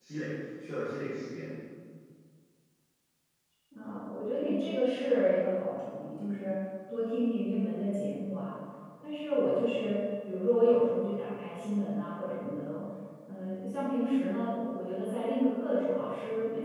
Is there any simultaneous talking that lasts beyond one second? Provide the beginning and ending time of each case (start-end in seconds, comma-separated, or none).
none